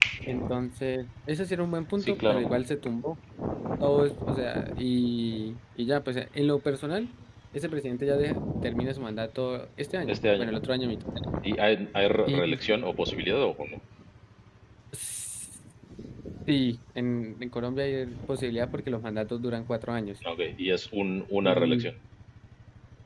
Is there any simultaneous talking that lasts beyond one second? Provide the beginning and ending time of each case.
none

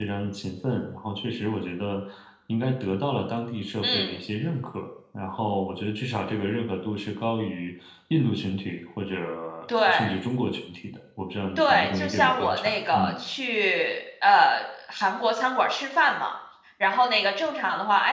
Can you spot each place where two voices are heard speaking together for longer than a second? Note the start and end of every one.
11.6-13.2

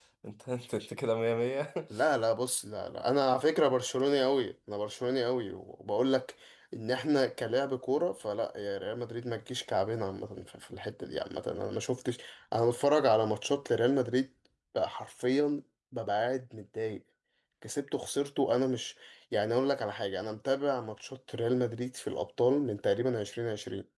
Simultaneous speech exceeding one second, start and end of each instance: none

